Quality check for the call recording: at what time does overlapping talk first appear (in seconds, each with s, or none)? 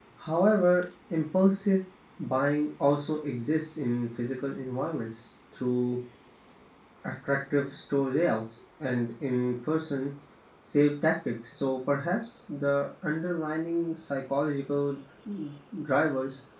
none